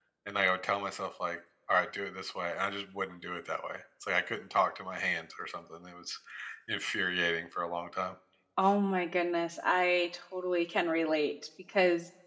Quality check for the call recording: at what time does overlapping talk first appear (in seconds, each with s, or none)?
none